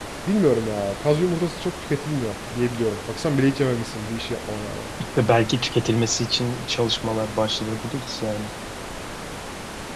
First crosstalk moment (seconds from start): none

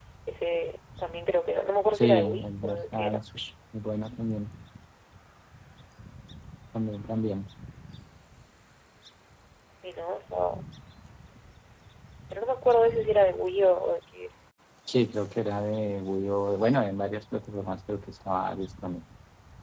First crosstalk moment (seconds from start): 1.9 s

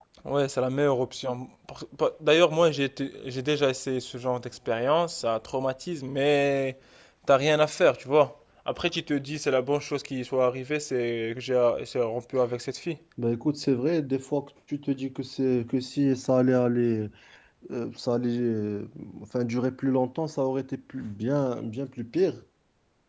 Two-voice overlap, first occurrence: none

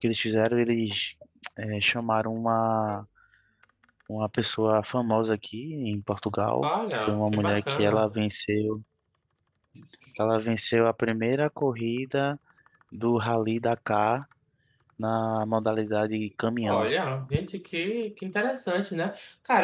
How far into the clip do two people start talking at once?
6.6 s

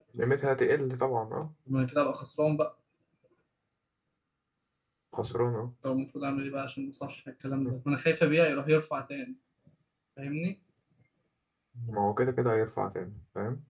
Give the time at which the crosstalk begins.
none

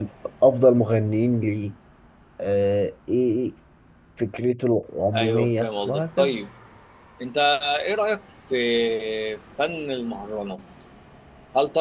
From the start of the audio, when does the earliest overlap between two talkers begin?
5.1 s

